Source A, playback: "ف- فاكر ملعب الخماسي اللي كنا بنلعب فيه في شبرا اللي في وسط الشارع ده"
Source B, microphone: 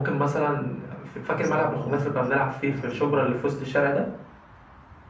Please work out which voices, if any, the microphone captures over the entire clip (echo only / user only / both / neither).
both